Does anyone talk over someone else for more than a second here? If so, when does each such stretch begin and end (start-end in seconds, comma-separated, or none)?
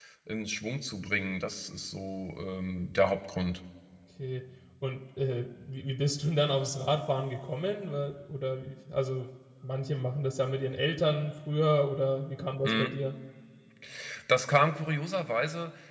none